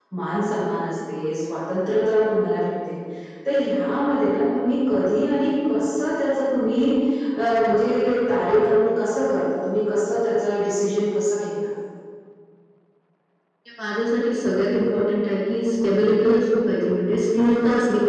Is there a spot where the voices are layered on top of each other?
No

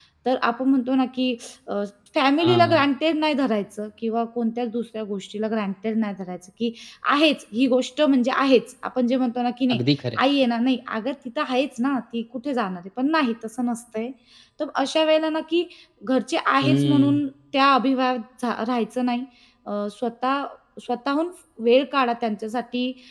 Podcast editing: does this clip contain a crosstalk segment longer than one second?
No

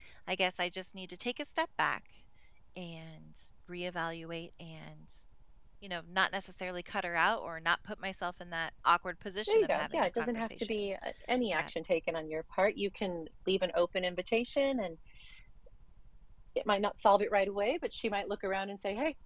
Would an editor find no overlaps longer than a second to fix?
No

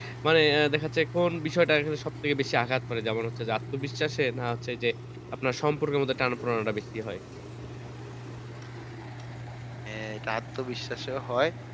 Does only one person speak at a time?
Yes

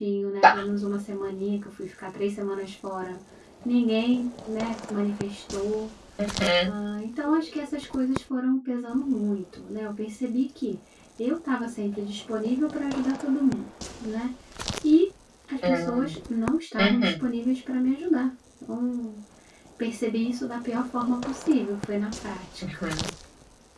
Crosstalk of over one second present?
No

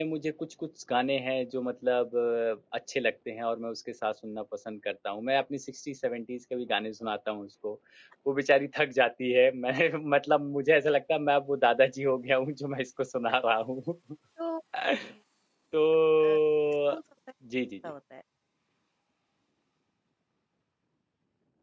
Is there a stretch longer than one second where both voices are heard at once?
No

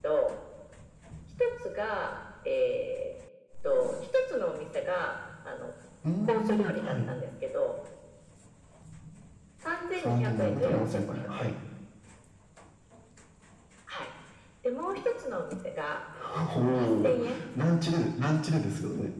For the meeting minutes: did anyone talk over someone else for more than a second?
Yes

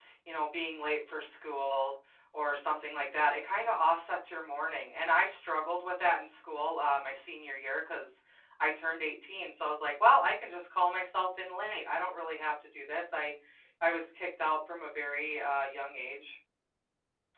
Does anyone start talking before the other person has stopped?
No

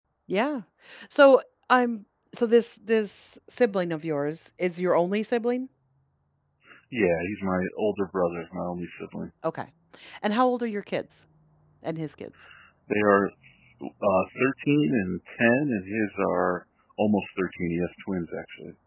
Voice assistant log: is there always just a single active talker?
Yes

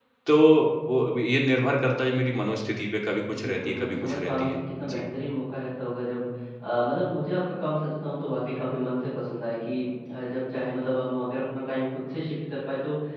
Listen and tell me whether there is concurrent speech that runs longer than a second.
Yes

